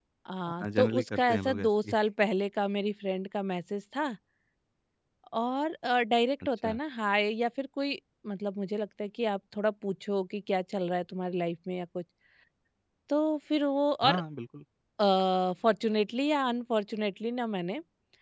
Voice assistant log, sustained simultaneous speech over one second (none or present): present